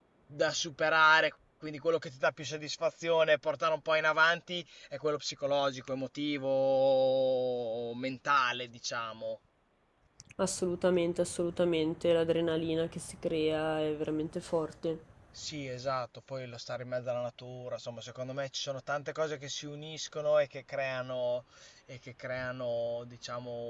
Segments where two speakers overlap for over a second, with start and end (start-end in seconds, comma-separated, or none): none